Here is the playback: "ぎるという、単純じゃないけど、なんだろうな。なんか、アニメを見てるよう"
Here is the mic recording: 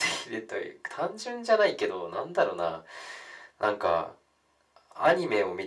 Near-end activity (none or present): none